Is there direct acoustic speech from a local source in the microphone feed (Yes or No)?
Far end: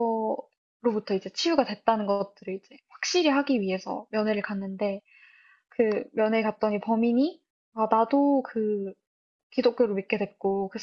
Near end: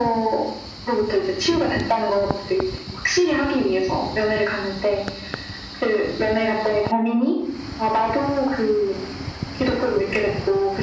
No